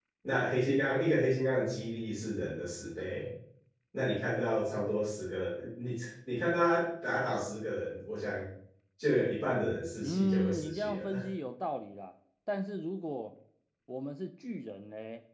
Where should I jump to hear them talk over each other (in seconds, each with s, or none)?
10.0 s